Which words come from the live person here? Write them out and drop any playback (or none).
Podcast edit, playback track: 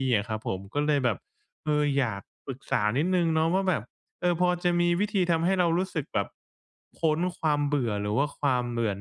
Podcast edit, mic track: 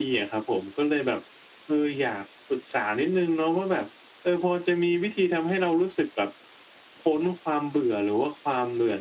none